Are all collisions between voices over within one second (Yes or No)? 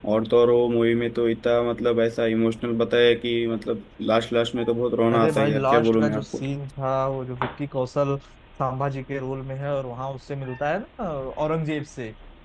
No